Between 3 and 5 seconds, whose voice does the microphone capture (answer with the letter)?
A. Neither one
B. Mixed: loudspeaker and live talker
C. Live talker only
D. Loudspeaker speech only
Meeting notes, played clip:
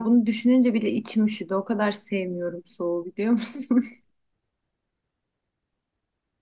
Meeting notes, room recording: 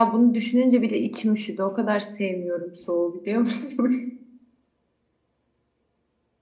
D